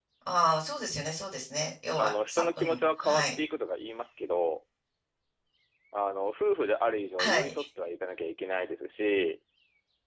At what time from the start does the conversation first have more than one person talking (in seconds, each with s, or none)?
1.9 s